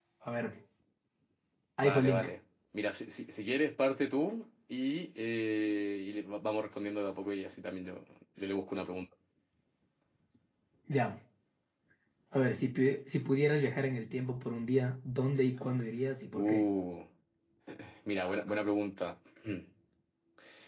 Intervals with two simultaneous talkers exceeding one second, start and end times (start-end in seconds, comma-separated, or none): none